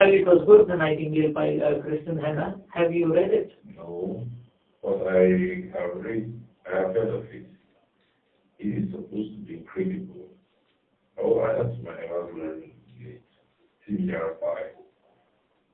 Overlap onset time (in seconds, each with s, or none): none